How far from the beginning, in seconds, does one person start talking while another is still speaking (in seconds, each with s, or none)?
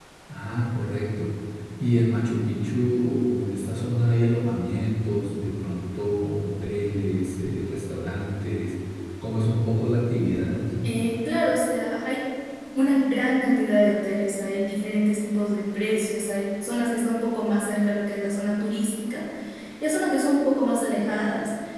none